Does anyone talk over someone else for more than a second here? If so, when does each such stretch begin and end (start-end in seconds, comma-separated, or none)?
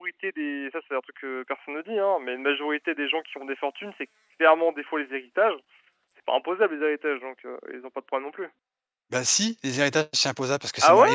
none